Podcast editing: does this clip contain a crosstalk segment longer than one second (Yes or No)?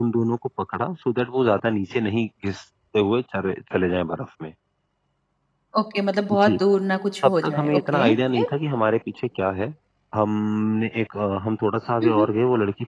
Yes